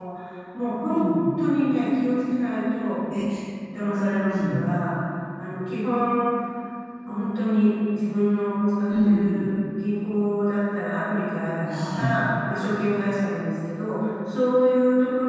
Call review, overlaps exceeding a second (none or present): none